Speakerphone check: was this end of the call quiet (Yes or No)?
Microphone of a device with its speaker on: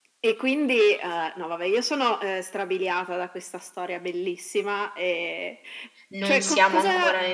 No